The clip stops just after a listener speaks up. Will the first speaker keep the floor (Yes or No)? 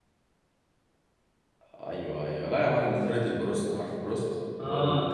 Yes